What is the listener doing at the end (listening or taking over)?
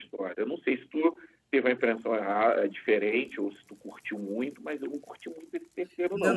taking over